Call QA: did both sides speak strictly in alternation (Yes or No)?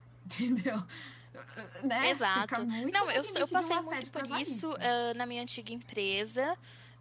No